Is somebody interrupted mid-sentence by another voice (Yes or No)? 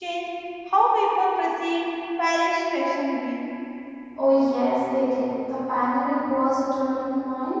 No